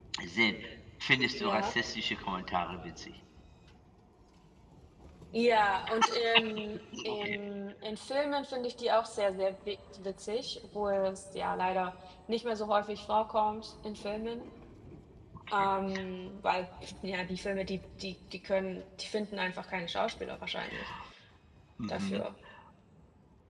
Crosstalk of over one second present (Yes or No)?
No